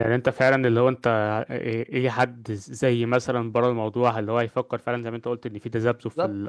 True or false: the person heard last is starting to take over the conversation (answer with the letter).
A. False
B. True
A